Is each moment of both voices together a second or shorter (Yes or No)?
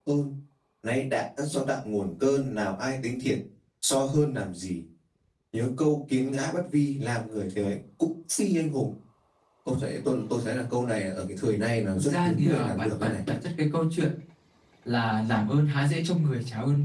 No